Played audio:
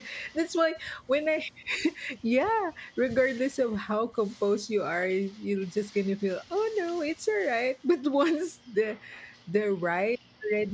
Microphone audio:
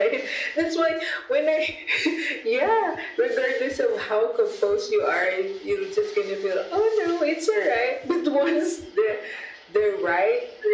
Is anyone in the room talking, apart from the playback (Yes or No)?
No